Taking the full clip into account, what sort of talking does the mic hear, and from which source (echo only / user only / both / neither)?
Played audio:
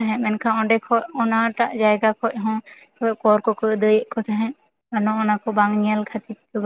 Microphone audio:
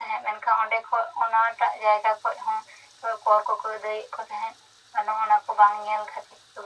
echo only